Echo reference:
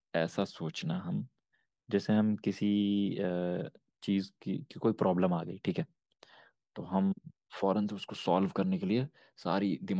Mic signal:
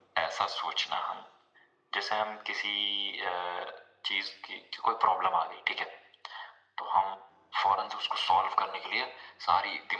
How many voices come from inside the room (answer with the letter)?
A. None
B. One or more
A